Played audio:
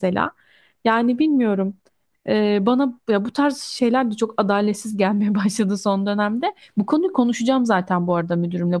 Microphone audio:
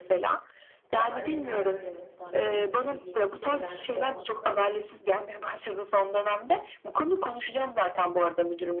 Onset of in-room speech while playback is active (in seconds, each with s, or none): 0.9 s